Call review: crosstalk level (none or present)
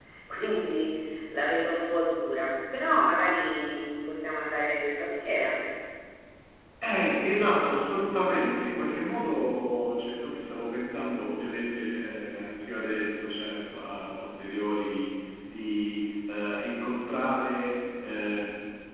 none